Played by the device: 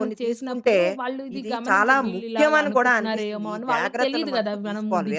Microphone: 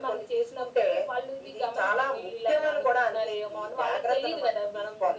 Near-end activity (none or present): none